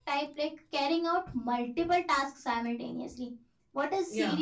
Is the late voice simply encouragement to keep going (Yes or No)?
Yes